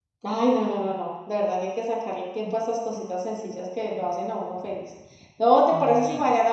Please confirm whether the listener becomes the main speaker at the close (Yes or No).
No